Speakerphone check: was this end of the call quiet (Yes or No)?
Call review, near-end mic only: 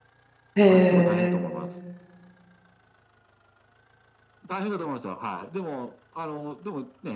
No